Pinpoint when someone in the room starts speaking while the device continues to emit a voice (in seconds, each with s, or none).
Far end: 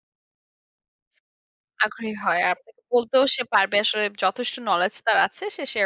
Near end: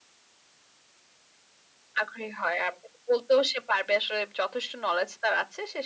none